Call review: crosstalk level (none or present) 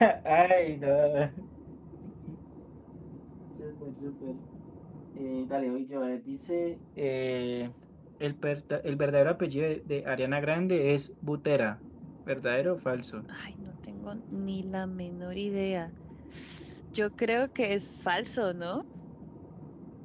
none